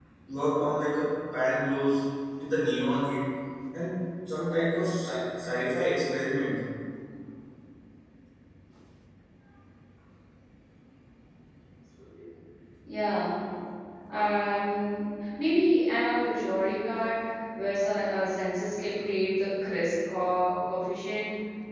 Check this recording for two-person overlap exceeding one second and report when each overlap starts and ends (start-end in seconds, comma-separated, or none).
none